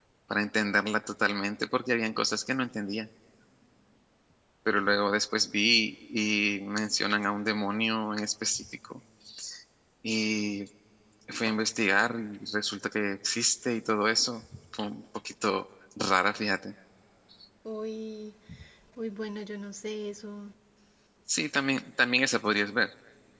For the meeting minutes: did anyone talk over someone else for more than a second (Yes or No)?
No